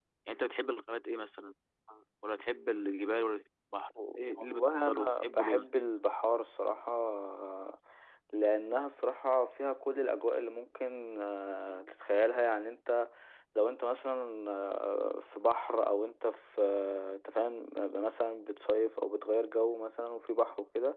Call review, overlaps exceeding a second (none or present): present